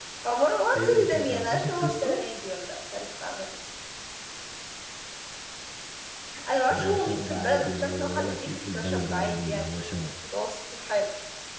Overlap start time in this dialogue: 0.8 s

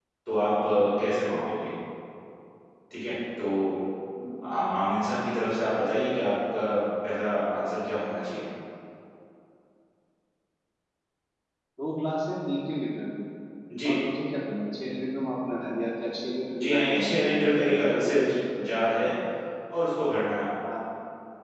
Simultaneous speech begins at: 16.5 s

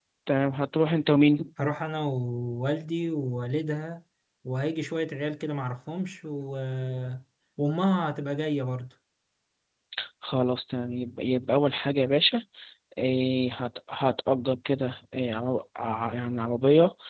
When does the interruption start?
none

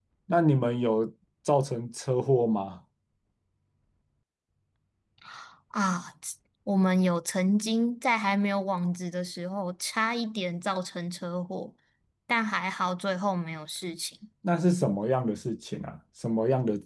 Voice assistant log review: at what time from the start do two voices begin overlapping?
none

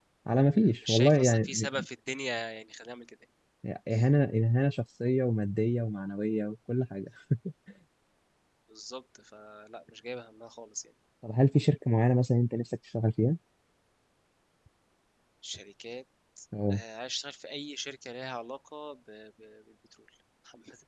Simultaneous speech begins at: 0.6 s

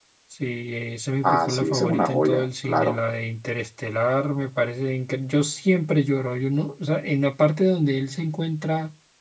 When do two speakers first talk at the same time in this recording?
1.2 s

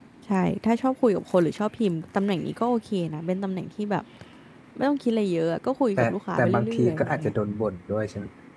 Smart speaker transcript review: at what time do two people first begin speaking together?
6.0 s

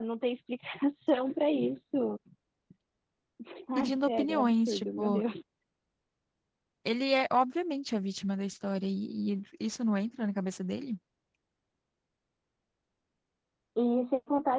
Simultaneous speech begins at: 3.8 s

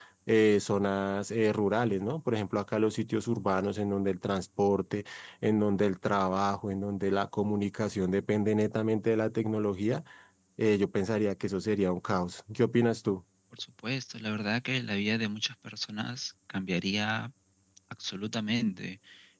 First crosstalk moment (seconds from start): none

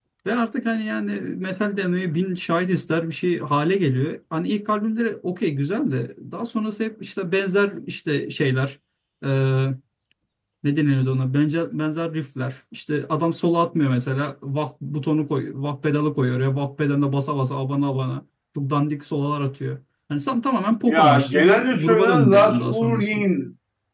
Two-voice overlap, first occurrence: 20.9 s

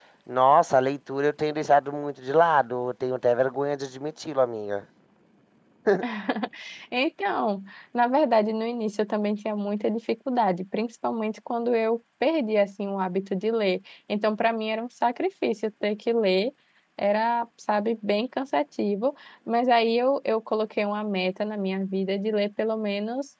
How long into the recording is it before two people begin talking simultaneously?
none

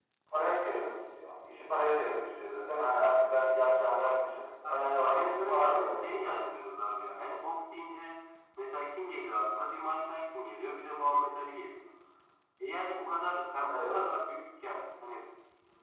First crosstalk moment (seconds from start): 4.7 s

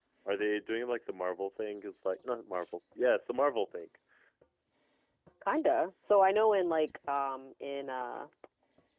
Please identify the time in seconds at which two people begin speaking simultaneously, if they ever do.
none

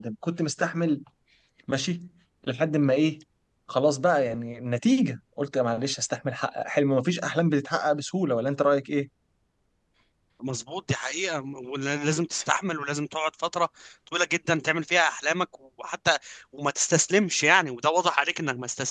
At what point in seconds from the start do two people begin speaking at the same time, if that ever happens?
none

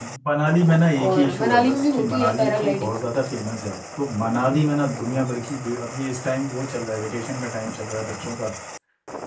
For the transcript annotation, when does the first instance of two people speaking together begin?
1.0 s

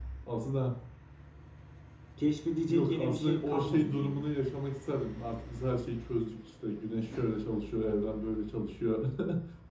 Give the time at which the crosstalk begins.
2.7 s

